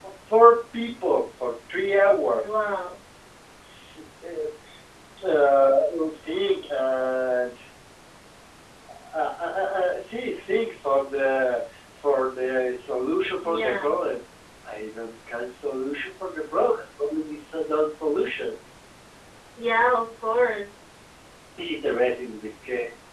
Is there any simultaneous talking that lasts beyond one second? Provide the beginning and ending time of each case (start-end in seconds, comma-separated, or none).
none